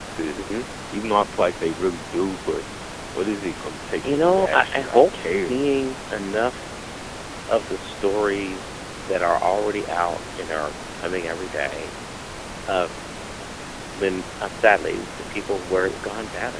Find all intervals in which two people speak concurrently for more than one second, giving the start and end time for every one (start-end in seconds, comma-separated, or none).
4.0-5.6